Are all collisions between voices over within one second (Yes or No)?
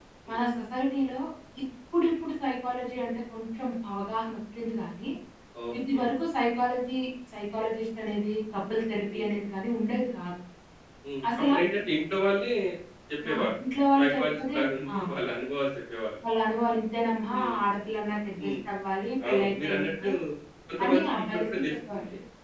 No